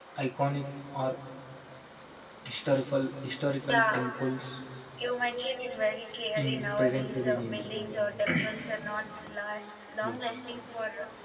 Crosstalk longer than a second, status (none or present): present